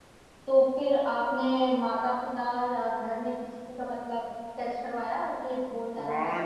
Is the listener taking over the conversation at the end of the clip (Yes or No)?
Yes